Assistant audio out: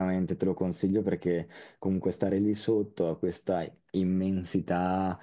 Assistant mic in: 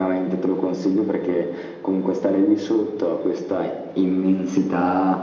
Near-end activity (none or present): none